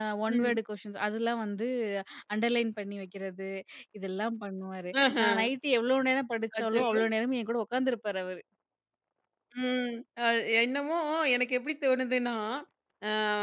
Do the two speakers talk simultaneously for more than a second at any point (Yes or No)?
No